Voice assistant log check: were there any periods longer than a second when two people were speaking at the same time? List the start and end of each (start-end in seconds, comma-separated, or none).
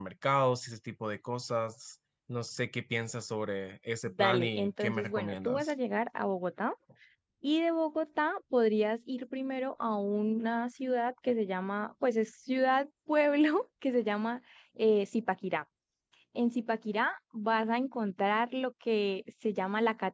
4.0-5.7